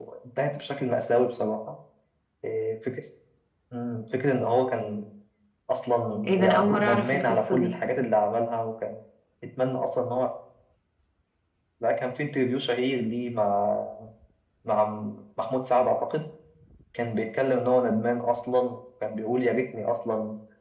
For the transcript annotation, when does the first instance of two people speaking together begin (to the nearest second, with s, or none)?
6 s